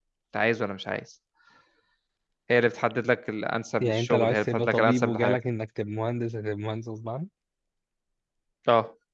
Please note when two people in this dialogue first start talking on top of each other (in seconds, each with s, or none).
3.8 s